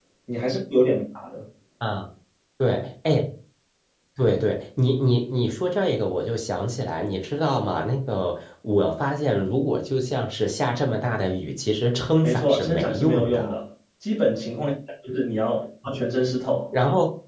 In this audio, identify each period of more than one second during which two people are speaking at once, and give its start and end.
12.2-13.5

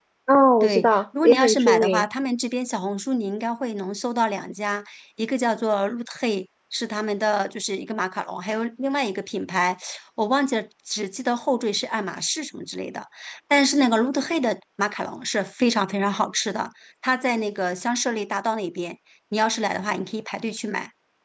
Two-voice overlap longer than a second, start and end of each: 0.6-2.0

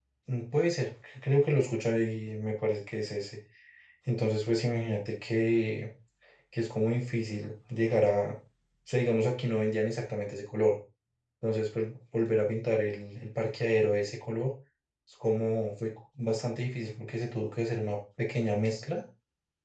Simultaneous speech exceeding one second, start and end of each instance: none

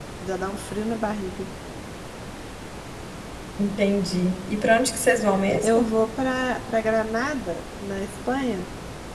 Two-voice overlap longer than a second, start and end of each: none

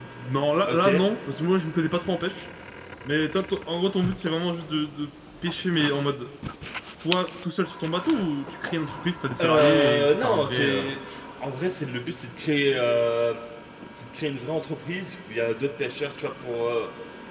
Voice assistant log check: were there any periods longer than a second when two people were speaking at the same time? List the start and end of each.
9.4-10.9

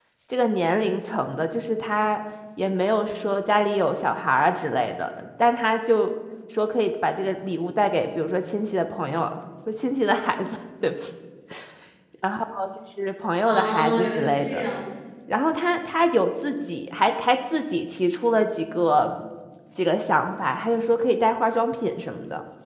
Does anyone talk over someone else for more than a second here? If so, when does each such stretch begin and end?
13.4-14.7

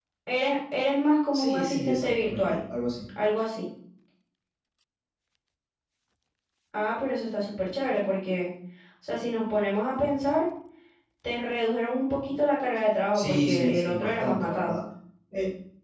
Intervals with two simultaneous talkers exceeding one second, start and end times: 1.3-2.6, 13.1-14.8

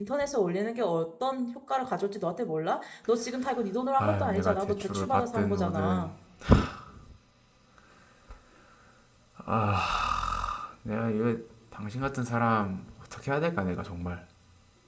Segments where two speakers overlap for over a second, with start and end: 4.0-6.1

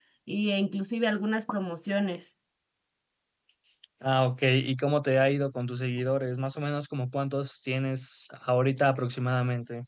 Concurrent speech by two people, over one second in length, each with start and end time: none

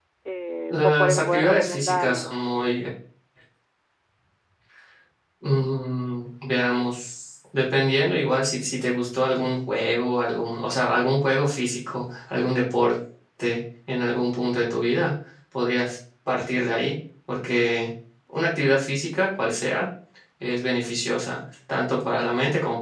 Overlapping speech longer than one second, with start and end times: 0.7-2.3

